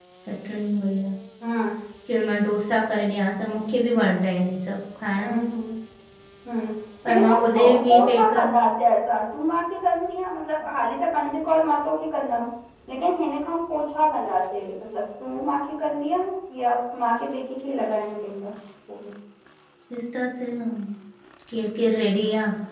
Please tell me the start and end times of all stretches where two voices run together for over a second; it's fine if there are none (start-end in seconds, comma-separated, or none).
7.1-8.6